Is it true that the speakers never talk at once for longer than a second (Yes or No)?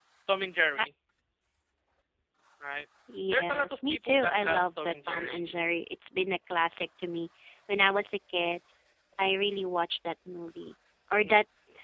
No